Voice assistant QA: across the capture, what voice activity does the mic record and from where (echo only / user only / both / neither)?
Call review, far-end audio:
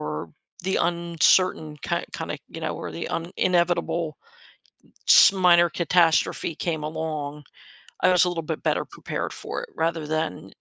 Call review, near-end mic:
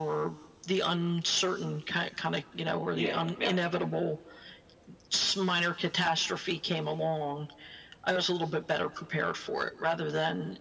both